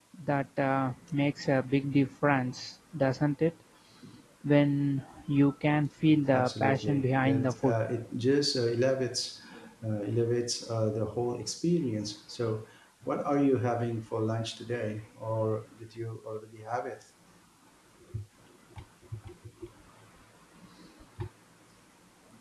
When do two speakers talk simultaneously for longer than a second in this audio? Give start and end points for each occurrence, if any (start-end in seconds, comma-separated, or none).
6.3-7.8